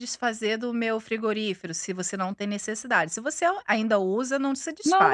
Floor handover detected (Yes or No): Yes